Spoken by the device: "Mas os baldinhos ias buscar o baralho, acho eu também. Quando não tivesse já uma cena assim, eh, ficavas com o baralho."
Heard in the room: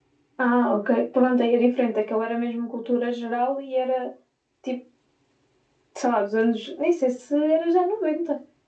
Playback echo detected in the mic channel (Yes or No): No